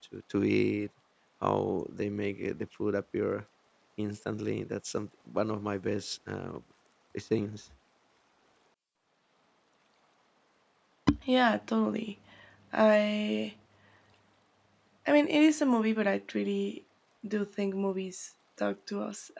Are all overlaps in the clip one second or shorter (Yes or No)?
Yes